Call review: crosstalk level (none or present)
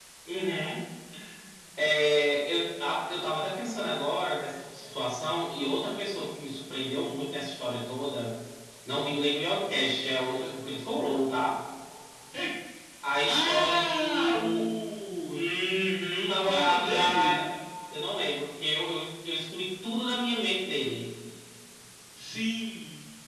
present